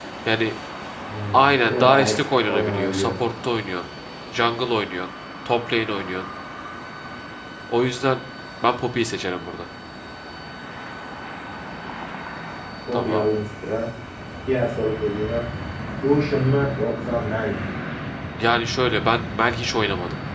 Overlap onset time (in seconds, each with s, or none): 1.3 s